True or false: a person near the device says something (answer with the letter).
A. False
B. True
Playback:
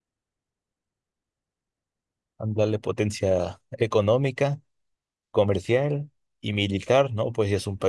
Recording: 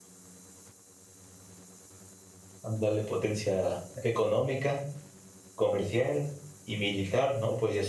A